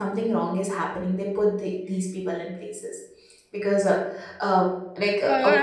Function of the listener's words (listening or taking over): taking over